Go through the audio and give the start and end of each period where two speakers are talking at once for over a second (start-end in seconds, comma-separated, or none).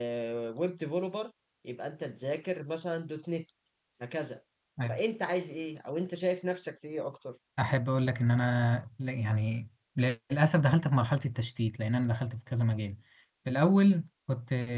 none